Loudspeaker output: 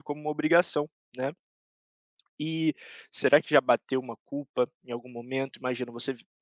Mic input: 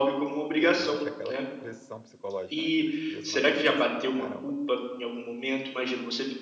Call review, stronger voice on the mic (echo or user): echo